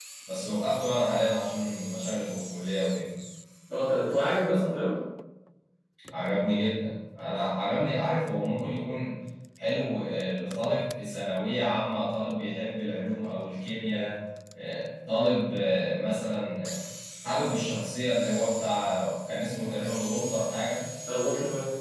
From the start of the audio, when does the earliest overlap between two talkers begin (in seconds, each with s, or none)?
none